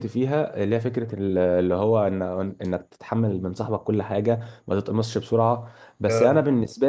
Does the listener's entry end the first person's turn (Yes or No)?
No